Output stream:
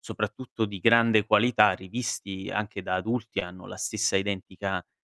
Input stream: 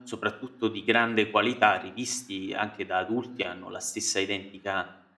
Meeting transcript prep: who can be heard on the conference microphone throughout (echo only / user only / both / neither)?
echo only